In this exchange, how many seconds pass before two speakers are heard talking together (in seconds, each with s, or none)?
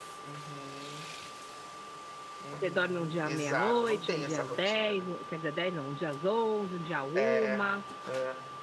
2.5 s